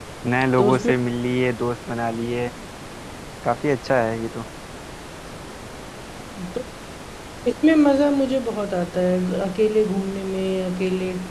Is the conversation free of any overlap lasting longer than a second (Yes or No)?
Yes